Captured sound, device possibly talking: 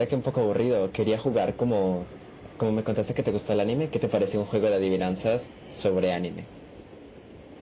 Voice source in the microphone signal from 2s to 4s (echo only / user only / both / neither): echo only